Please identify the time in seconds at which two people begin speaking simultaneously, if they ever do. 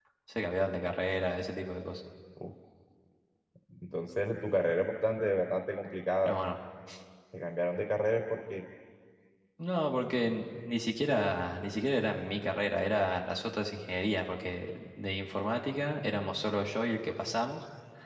none

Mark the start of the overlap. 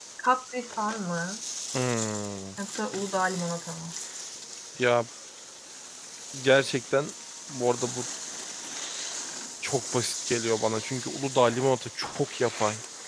none

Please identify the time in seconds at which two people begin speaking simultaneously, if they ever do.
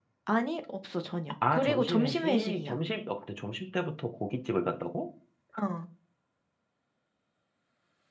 1.4 s

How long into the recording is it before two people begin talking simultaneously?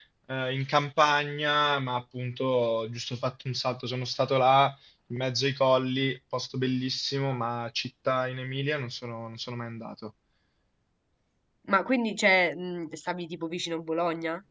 none

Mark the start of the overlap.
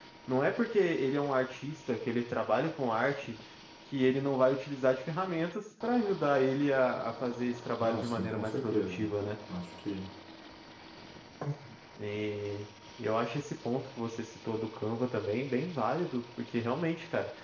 7.8 s

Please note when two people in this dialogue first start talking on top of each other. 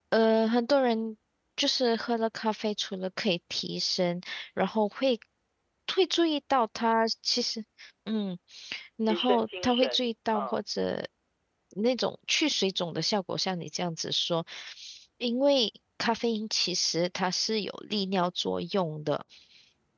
9.0 s

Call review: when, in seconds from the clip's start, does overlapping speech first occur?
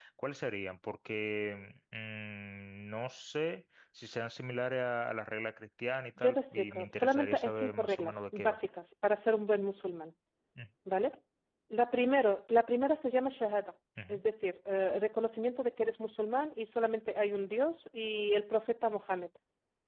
6.2 s

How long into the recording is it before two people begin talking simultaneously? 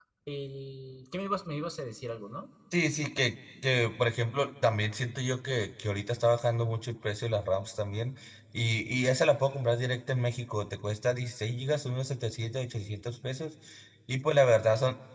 none

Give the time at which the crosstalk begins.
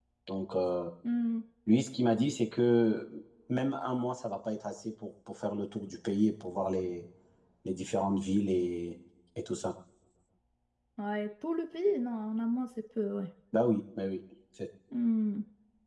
none

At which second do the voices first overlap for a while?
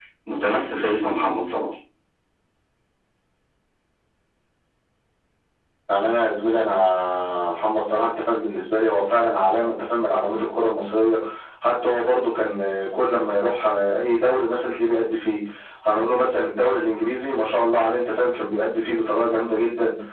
none

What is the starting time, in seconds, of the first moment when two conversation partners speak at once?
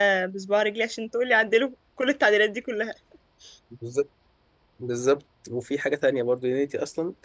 none

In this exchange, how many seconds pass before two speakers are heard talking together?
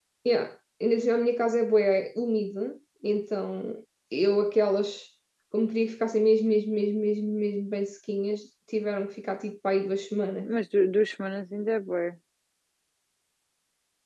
none

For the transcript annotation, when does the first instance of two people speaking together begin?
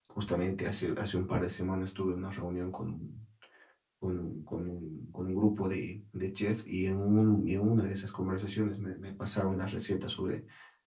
none

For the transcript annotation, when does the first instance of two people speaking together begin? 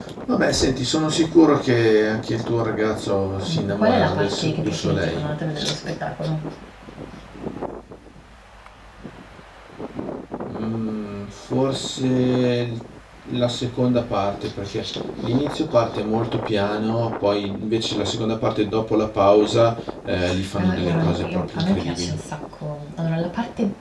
3.5 s

